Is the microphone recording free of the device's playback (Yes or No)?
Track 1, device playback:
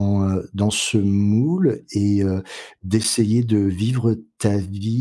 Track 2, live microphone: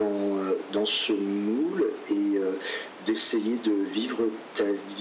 No